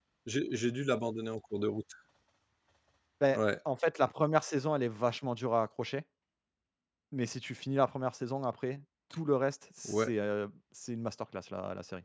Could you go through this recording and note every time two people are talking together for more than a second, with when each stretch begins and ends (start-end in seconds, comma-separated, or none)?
none